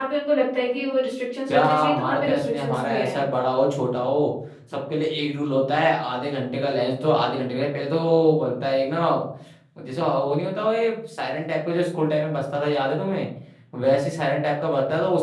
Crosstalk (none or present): present